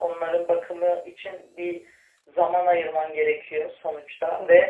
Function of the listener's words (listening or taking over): listening